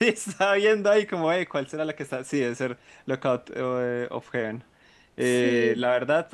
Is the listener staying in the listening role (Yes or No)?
Yes